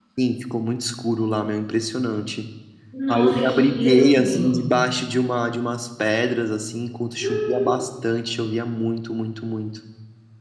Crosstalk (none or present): present